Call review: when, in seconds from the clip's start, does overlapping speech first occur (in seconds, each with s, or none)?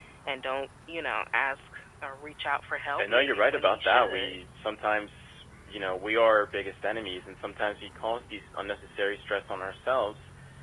3.0 s